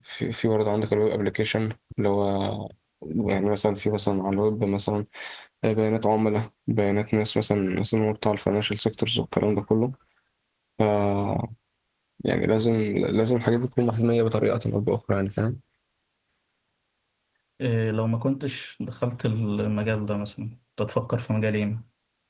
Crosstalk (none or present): none